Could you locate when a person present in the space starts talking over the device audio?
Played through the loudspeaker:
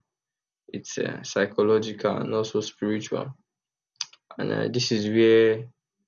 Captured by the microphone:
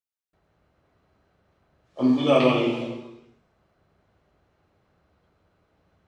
2.0 s

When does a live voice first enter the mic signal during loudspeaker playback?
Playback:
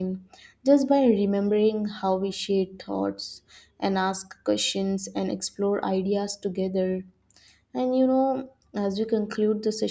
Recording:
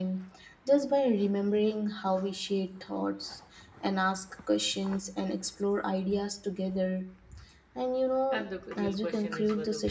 8.3 s

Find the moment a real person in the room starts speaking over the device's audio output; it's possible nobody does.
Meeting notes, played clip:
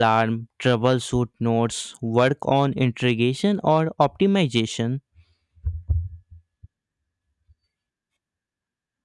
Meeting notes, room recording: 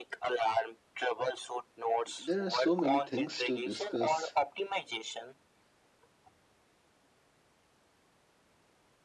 2.2 s

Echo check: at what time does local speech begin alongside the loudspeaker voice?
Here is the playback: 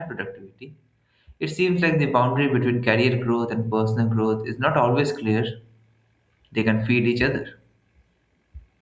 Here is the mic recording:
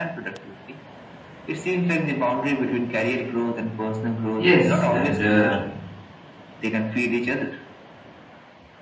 4.4 s

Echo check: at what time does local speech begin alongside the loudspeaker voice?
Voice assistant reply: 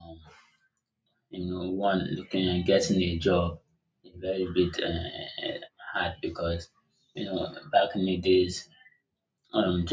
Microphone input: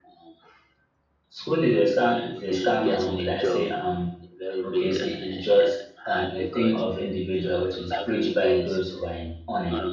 1.3 s

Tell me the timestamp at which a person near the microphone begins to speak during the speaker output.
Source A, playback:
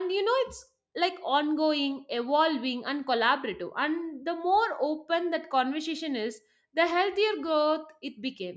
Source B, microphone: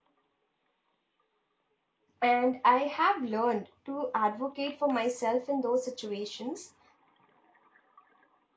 2.2 s

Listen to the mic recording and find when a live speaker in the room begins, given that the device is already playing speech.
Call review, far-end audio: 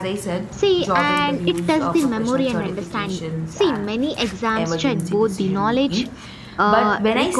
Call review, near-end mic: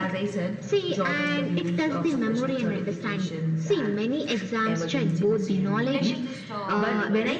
5.9 s

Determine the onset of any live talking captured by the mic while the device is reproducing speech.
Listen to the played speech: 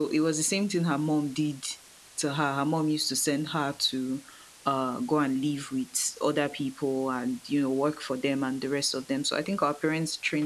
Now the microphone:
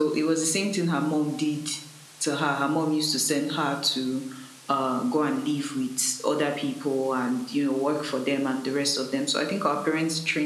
none

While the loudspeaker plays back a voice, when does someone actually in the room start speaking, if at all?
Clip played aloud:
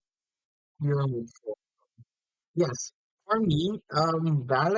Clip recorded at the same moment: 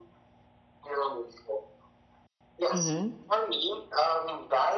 2.7 s

